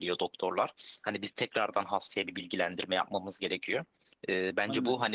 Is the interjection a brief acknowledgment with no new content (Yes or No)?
Yes